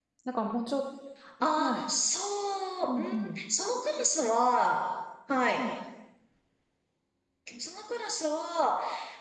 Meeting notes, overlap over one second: none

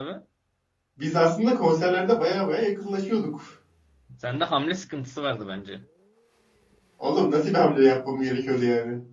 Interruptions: none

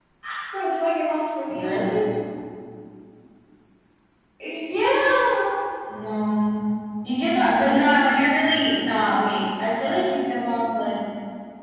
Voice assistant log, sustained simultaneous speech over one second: none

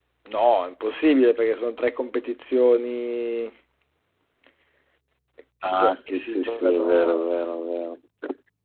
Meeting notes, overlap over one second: present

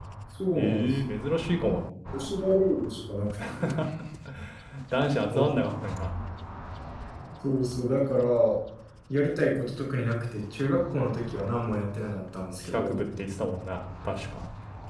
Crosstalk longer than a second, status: none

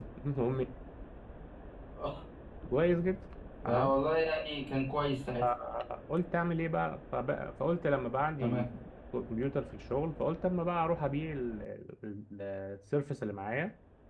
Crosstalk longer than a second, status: none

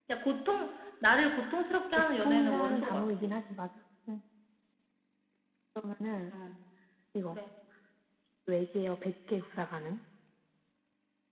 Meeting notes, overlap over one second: present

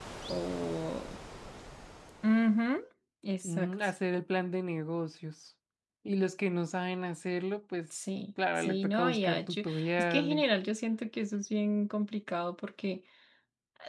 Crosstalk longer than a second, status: present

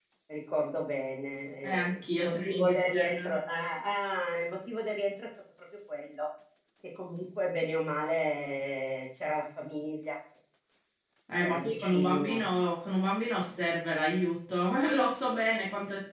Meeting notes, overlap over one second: present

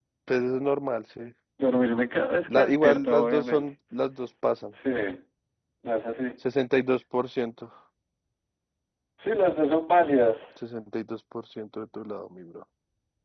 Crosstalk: present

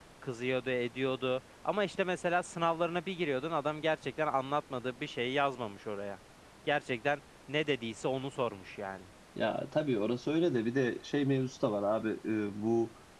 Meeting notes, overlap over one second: none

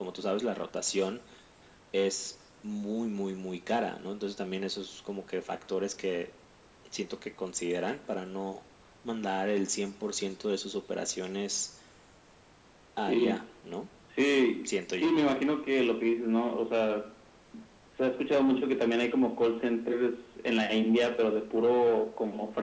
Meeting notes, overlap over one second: none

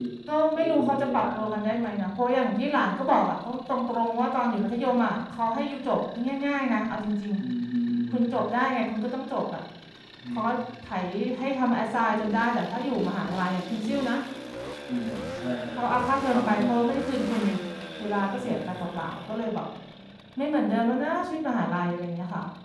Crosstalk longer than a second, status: present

